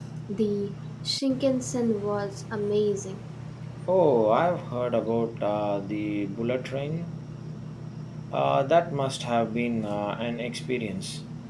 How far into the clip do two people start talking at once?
none

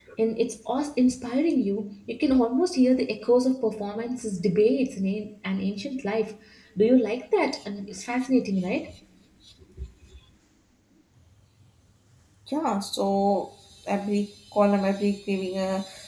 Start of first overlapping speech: none

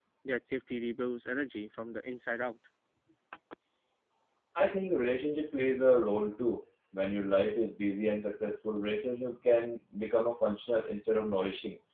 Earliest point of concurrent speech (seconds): none

